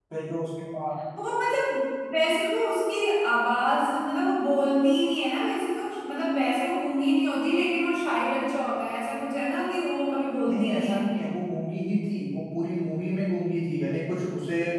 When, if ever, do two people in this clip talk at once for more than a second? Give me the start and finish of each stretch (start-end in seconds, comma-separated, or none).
none